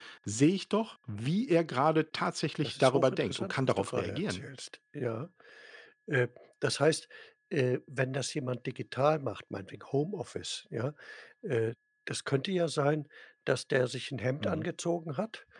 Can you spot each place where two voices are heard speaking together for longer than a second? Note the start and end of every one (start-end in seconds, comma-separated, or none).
2.6-4.4